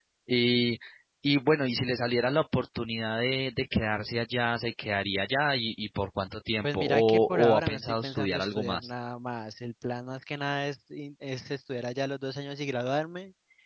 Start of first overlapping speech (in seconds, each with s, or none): 6.6 s